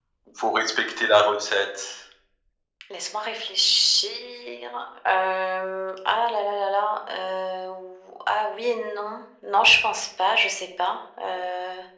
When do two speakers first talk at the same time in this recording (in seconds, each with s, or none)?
none